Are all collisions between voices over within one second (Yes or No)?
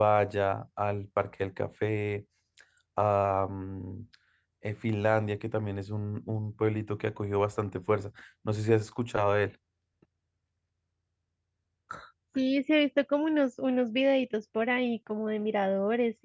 Yes